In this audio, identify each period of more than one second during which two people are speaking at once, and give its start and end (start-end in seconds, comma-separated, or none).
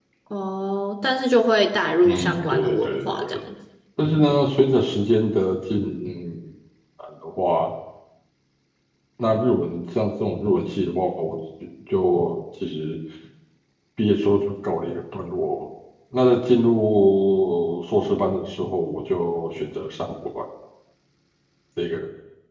2.0-3.4